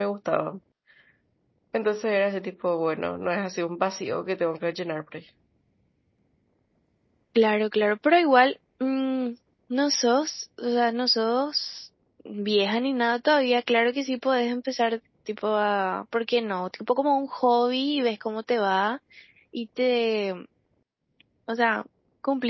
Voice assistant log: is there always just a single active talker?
Yes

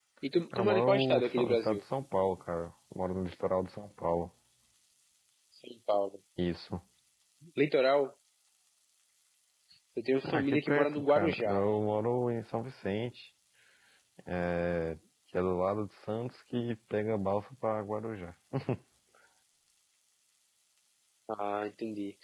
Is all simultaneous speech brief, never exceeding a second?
No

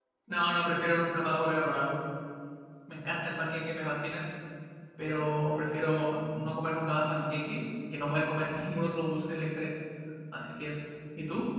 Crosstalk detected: No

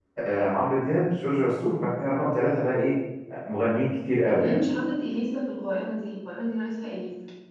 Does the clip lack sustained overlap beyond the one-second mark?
Yes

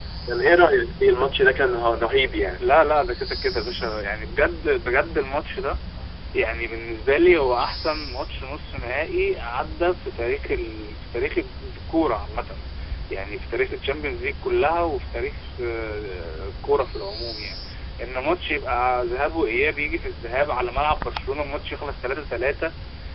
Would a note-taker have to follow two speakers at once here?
No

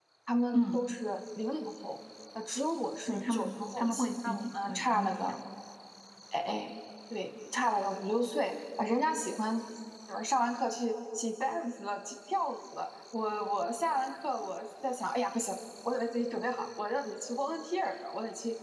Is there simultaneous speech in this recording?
Yes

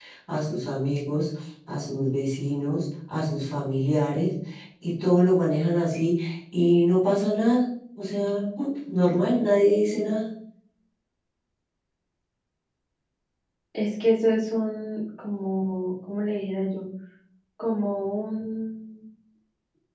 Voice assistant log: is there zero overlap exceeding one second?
Yes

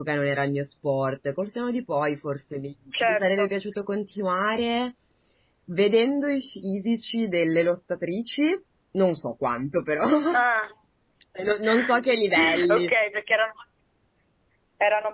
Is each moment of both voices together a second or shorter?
Yes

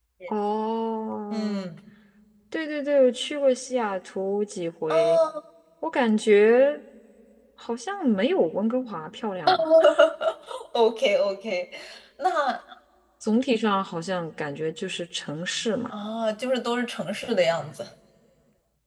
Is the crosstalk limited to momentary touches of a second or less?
Yes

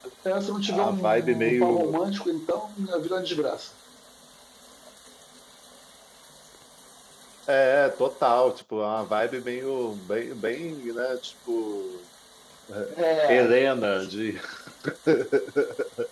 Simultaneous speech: Yes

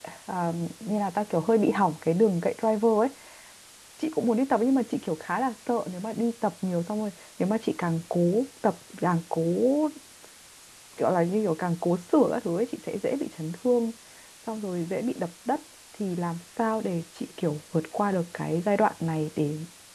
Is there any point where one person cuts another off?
No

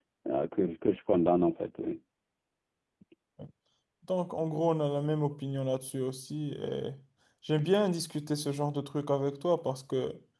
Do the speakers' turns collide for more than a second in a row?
No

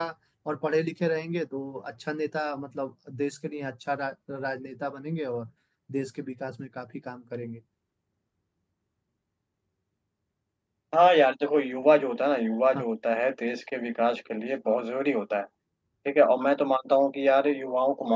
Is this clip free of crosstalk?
Yes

